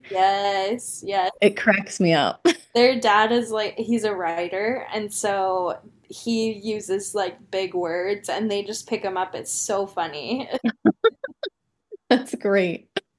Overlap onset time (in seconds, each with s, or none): none